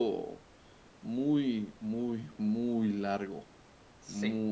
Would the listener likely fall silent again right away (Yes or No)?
Yes